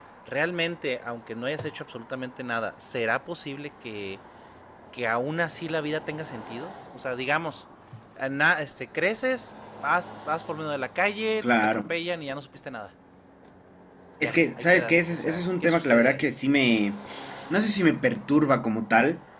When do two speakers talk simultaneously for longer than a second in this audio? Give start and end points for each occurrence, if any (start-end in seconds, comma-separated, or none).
14.2-16.2